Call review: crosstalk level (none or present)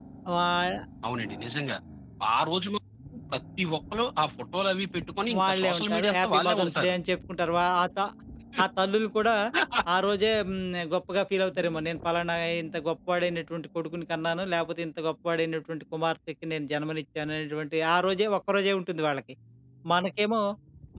present